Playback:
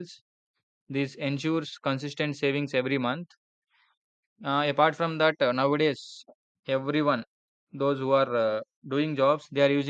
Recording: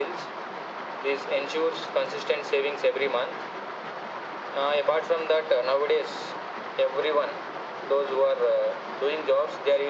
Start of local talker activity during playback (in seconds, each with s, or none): none